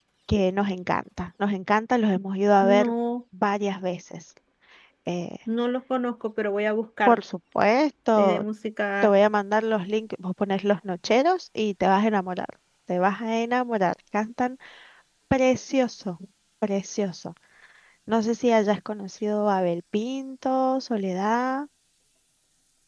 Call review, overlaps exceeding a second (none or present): none